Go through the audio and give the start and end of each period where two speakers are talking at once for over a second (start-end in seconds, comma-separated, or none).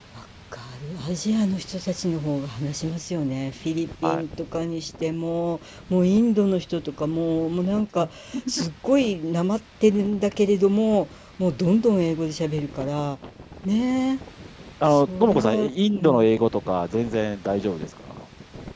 14.9-16.2